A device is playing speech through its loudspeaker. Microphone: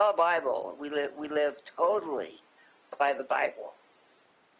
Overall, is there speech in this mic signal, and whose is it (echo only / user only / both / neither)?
echo only